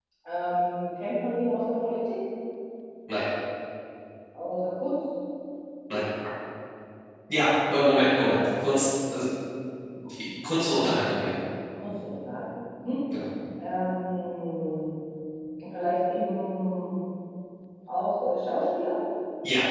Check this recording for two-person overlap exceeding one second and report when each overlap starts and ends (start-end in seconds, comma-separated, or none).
none